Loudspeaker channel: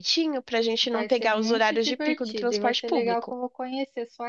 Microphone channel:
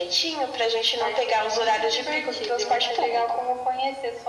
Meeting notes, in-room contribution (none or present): none